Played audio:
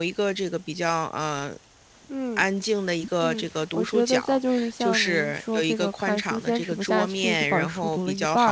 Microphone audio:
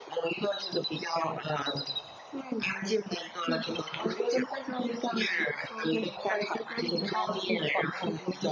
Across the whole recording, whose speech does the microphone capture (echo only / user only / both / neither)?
echo only